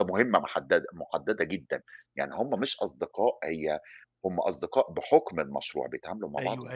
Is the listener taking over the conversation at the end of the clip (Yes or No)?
Yes